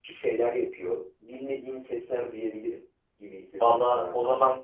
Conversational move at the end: taking over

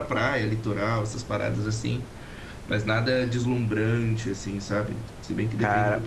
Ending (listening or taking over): taking over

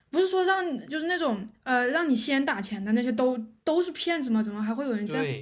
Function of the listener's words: taking over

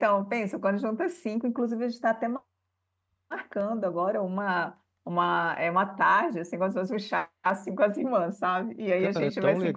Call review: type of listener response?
taking over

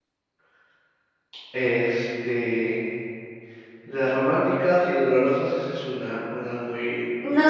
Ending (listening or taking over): taking over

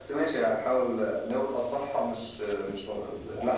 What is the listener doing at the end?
taking over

